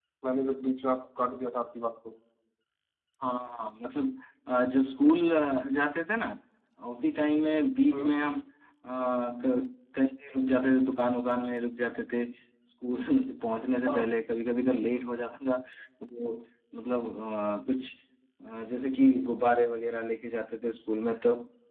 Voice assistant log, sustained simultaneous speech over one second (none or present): none